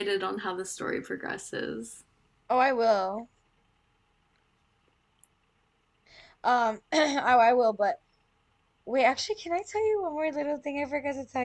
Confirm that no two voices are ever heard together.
Yes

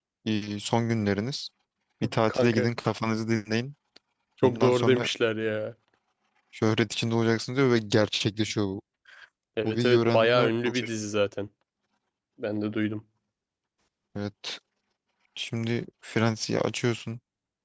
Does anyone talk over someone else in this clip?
Yes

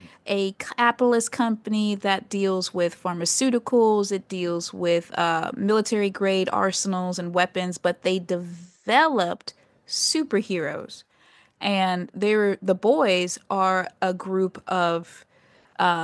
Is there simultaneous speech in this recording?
No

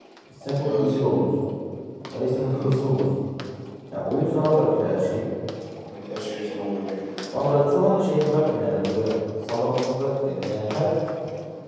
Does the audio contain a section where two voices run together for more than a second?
No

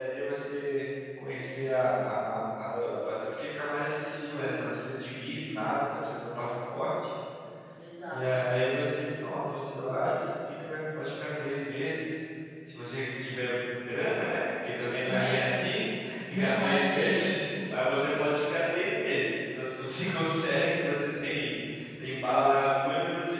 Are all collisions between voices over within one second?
No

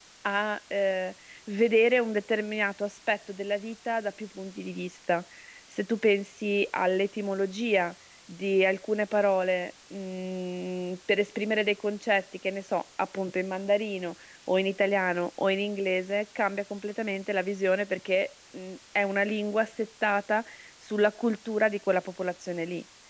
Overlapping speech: No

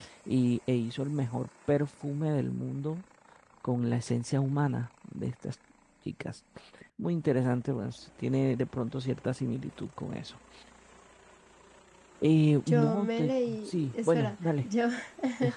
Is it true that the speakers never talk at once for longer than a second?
No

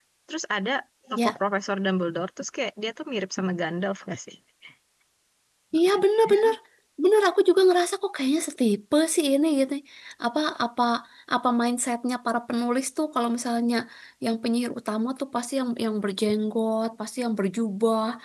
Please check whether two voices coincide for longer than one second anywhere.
No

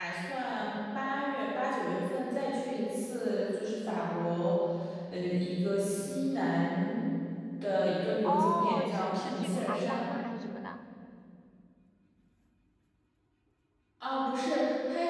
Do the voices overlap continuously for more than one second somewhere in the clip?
Yes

